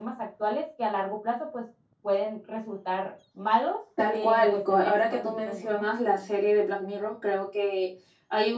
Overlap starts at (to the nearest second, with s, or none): 4 s